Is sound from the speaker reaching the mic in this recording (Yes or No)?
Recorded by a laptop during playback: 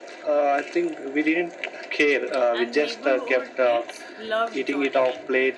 Yes